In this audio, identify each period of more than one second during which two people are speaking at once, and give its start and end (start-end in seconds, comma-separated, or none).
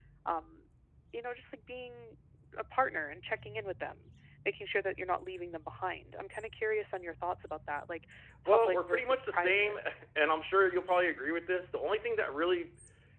8.5-9.8